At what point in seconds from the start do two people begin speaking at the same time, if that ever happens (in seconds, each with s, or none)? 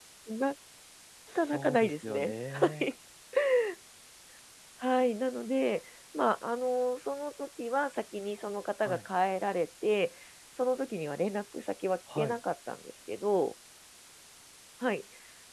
1.5 s